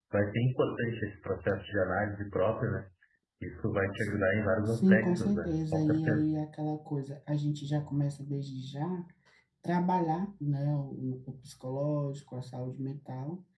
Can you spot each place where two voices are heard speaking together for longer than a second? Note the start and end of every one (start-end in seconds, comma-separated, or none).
4.7-6.3